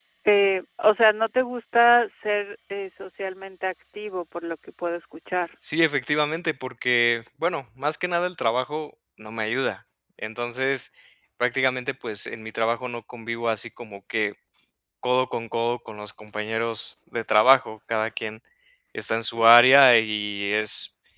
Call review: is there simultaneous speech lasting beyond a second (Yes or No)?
No